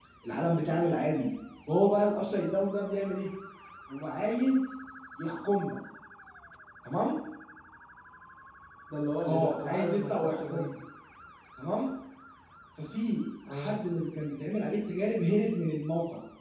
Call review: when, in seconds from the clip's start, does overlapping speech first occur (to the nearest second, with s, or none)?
9 s